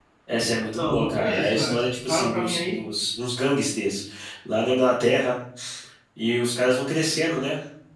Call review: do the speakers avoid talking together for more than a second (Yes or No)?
No